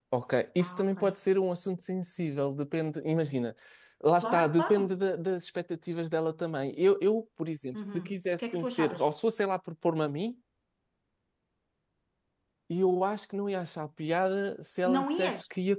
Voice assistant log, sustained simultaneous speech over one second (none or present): present